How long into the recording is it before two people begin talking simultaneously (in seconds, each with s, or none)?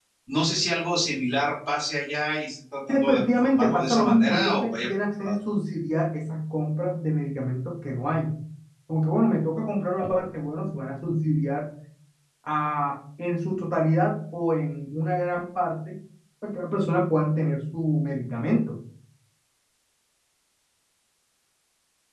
2.9 s